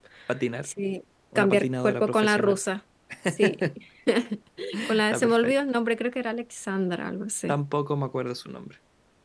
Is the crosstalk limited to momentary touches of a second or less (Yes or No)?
No